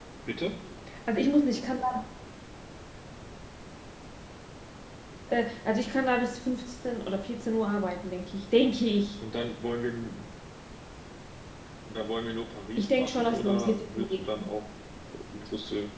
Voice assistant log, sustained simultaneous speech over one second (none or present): present